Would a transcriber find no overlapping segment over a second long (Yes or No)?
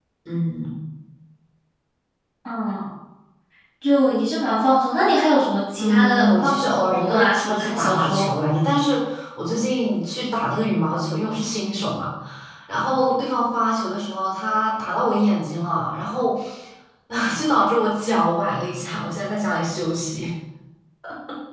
No